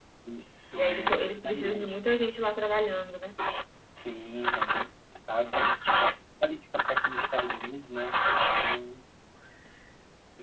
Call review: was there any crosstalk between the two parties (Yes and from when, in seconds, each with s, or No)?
Yes, from 0.7 s